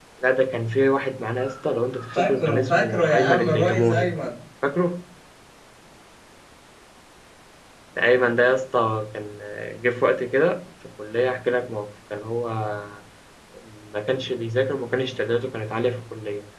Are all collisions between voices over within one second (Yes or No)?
No